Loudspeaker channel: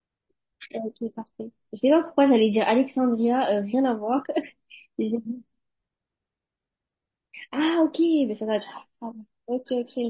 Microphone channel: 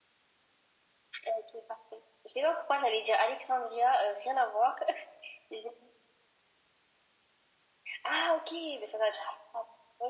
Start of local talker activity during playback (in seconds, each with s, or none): none